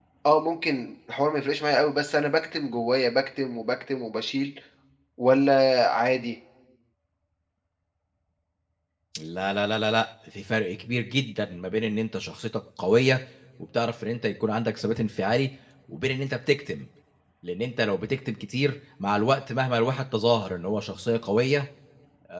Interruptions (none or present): none